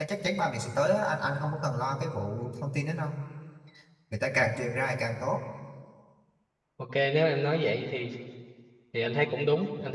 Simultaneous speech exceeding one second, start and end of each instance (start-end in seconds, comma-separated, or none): none